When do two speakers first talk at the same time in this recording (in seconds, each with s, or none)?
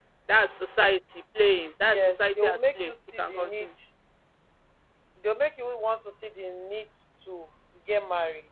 1.9 s